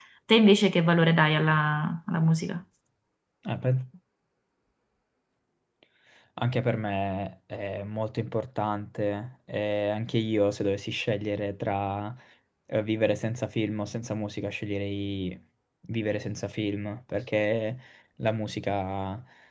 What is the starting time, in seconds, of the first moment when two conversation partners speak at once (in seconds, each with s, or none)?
none